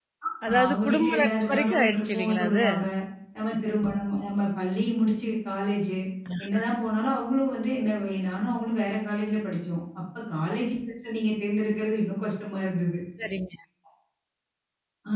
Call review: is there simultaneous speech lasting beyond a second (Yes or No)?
Yes